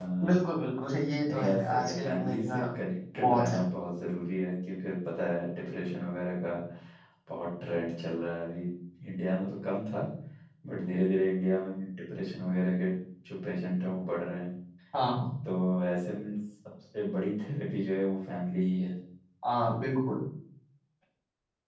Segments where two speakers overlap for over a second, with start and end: 1.3-2.6

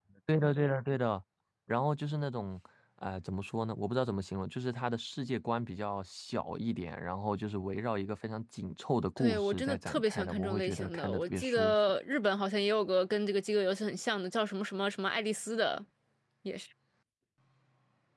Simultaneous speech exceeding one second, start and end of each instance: 9.2-11.8

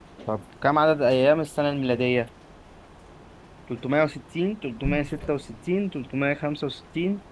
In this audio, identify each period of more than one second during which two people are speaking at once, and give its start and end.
none

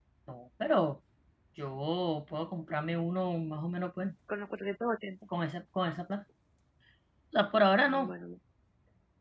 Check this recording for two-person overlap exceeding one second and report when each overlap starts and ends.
none

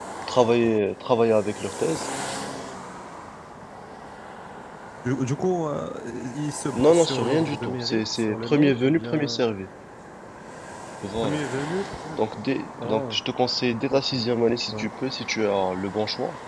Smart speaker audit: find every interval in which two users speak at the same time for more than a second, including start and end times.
6.7-9.4

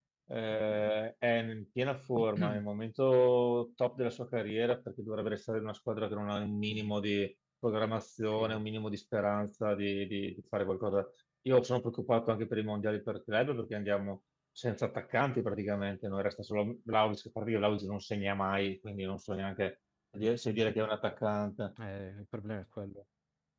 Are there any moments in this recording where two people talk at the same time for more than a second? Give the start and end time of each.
none

